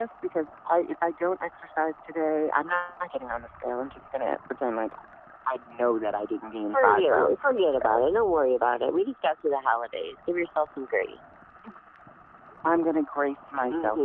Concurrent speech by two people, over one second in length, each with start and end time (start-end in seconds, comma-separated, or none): 6.7-8.0